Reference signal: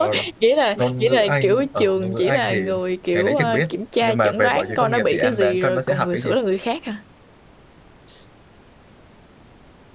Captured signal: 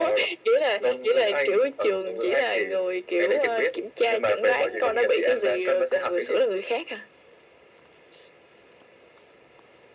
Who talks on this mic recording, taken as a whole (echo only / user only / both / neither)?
echo only